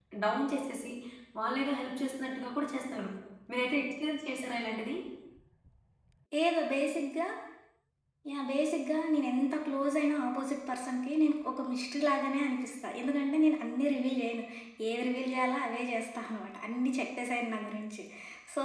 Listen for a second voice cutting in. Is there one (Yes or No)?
No